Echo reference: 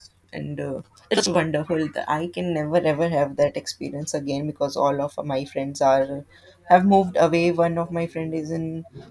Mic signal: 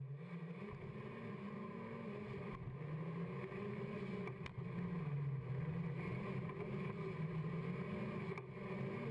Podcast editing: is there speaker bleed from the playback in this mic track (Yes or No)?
No